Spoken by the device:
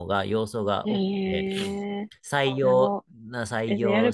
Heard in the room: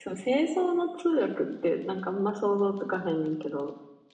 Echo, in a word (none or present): none